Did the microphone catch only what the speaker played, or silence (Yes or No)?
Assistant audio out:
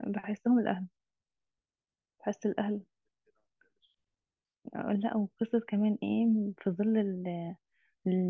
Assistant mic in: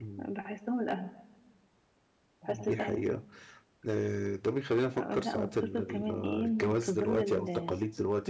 No